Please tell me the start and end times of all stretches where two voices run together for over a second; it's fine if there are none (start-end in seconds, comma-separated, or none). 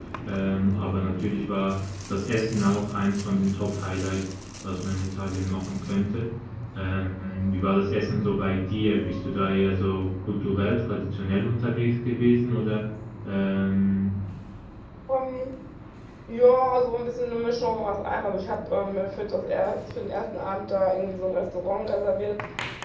none